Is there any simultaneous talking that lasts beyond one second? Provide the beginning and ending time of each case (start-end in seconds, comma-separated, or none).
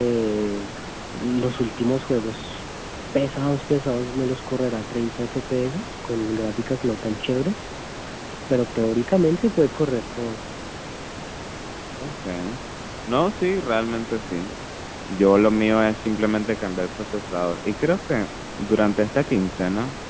none